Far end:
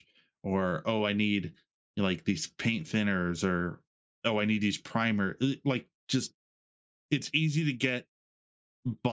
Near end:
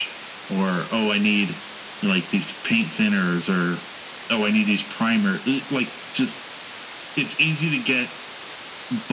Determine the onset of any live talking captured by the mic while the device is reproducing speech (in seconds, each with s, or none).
none